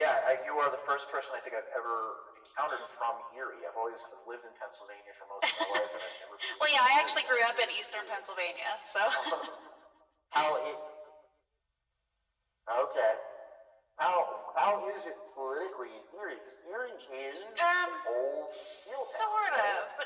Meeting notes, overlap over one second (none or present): present